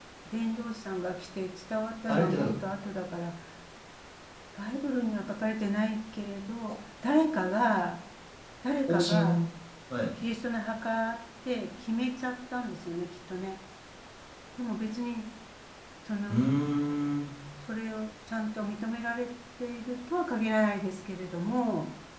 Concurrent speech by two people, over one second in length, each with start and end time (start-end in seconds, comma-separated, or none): none